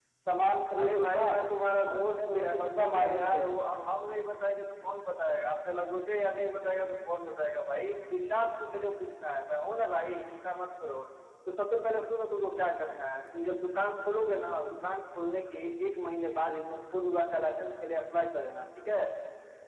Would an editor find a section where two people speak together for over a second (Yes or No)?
Yes